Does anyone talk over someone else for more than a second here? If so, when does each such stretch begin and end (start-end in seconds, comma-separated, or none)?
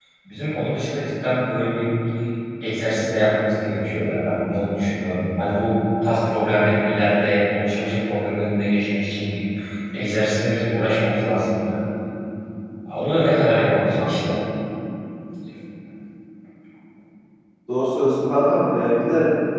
none